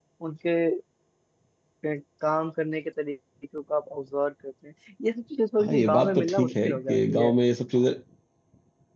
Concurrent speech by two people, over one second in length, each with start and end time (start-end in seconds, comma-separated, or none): 5.6-7.3